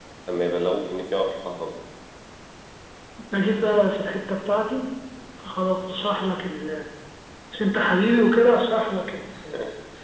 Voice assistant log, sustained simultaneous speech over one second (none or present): none